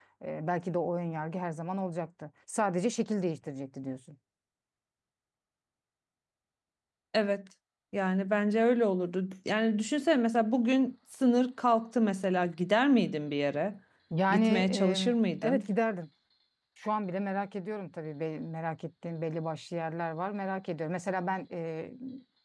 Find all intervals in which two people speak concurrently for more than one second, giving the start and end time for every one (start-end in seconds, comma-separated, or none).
14.3-15.6